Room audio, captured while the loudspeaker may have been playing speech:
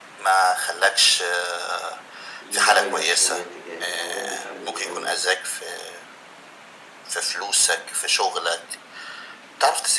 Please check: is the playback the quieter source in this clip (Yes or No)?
No